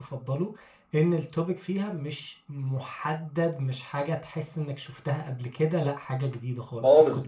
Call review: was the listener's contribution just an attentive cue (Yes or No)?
No